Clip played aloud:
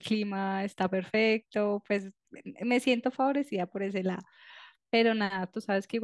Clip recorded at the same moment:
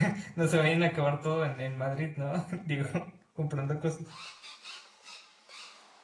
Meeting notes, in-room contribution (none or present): present